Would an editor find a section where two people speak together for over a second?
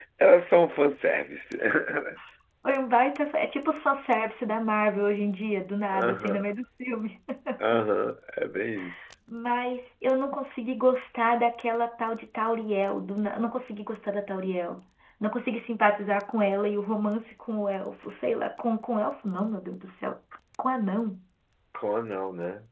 No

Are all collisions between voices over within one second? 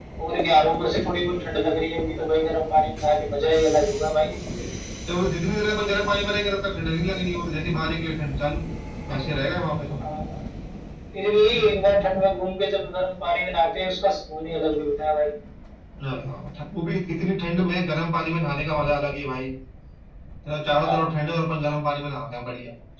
Yes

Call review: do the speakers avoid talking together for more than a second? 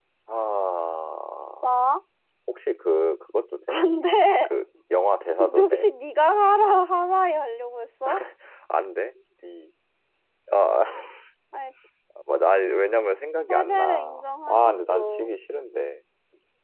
No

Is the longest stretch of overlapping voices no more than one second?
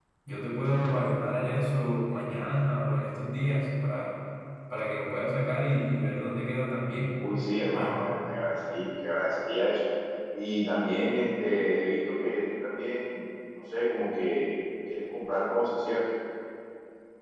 Yes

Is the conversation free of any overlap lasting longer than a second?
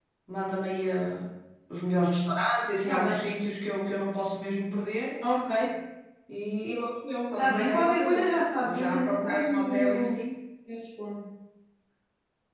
No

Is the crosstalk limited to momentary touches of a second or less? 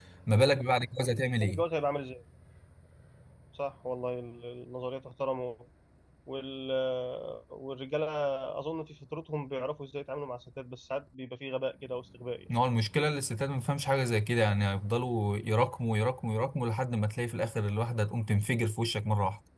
Yes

